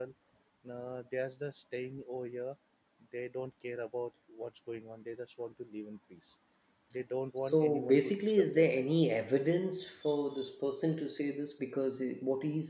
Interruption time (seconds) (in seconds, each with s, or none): 7.4 s